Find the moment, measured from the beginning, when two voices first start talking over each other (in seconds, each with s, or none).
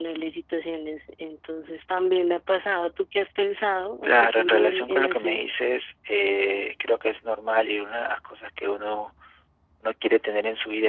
4.0 s